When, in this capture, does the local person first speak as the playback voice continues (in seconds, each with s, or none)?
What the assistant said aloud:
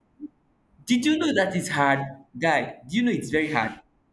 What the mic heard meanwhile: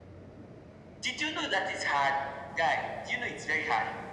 none